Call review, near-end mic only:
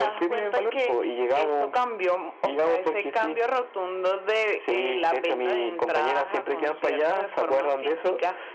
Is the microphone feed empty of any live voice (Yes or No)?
Yes